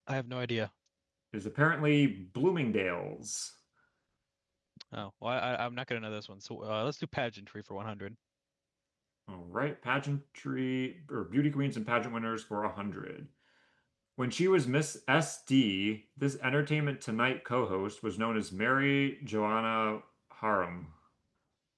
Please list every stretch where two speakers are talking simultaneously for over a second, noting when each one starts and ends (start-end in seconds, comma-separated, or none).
none